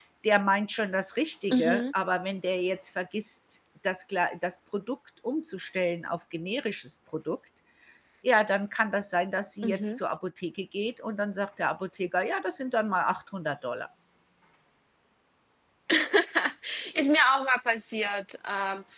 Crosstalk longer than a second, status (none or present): none